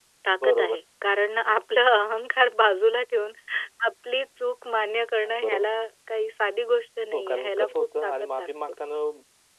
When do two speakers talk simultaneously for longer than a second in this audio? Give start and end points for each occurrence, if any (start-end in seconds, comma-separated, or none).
7.1-8.7